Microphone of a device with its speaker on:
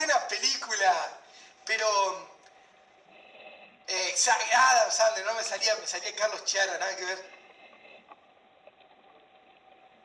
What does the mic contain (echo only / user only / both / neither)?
echo only